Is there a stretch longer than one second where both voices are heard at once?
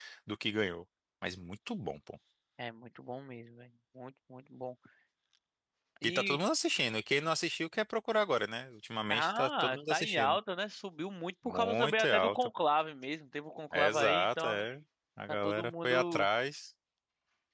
Yes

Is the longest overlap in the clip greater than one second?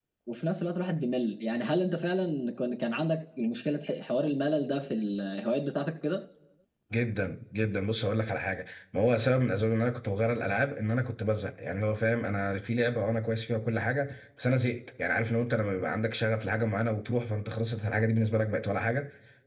No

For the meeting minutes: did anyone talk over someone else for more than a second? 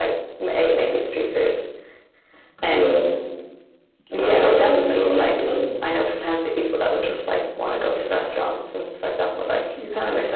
Yes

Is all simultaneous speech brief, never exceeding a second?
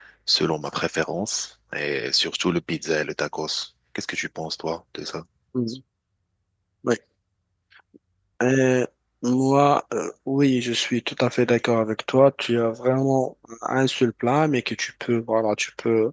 Yes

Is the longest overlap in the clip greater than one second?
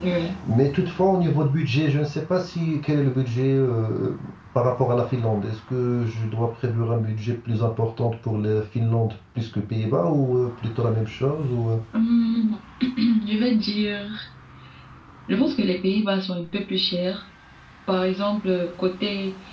No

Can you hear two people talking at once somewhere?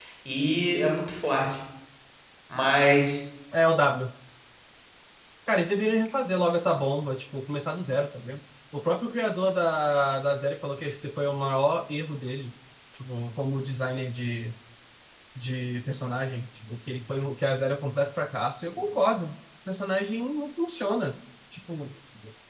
No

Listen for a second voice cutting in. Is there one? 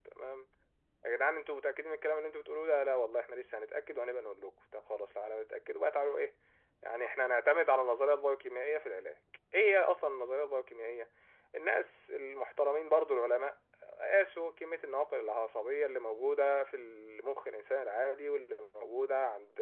No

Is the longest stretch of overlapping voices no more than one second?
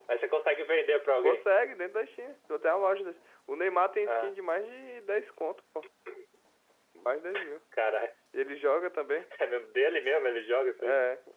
Yes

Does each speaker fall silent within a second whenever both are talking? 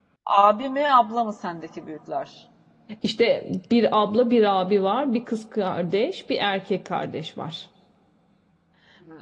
Yes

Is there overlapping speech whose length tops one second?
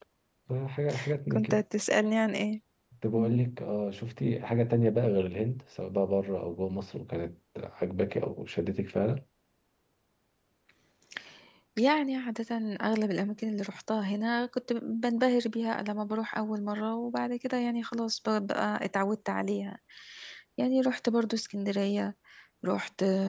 No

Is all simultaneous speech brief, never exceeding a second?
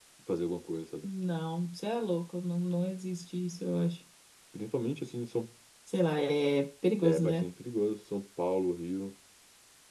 Yes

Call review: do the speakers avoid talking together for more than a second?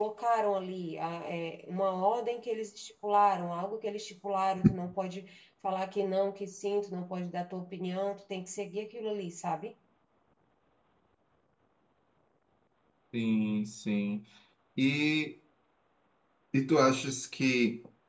Yes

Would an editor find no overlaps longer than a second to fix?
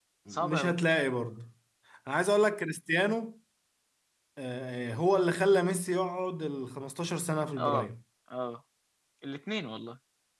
Yes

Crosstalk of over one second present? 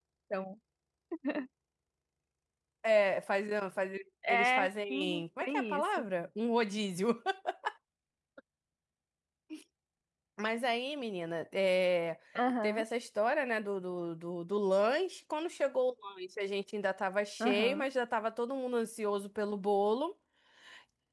Yes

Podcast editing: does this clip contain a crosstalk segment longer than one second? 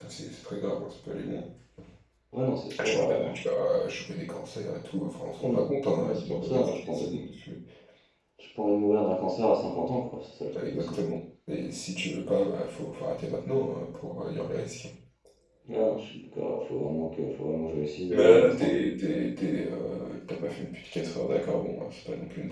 Yes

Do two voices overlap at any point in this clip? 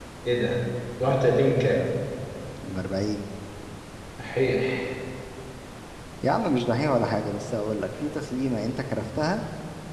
No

